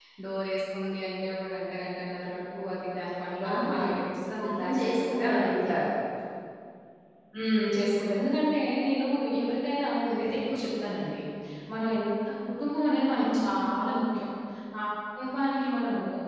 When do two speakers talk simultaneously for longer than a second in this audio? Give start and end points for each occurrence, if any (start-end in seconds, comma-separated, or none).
4.4-5.7